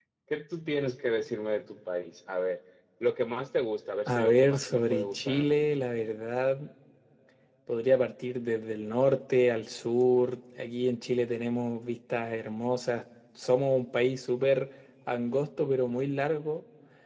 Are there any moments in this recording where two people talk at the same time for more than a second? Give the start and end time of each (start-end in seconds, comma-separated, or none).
4.1-5.7